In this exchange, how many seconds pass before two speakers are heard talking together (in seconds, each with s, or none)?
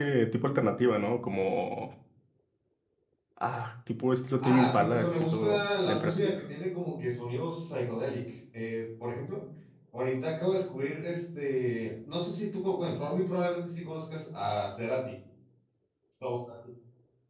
4.4 s